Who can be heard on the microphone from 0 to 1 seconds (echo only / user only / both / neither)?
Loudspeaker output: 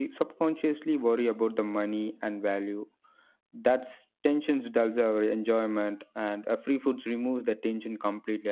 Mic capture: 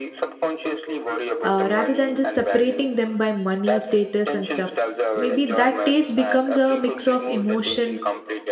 echo only